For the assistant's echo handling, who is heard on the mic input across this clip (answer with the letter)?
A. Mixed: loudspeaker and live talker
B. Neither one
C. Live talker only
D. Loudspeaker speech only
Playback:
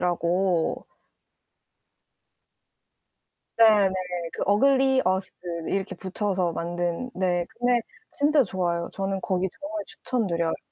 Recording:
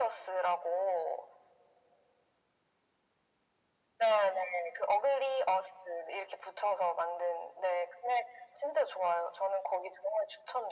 D